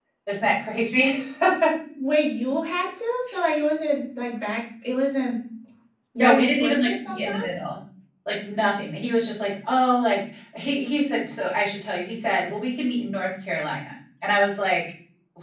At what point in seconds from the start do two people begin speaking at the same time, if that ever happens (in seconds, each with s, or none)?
6.2 s